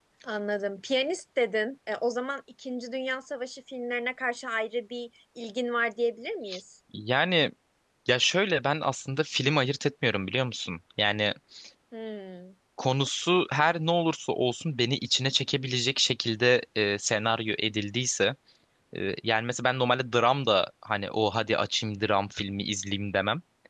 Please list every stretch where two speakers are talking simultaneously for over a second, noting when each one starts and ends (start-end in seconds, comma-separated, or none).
none